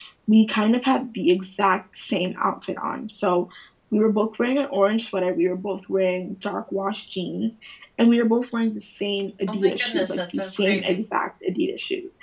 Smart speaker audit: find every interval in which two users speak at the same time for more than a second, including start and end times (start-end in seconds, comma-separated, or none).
9.5-11.0